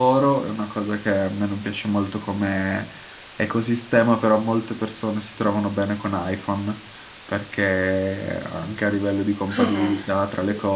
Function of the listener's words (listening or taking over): listening